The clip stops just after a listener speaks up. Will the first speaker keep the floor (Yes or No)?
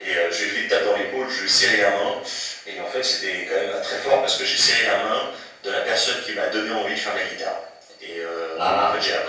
Yes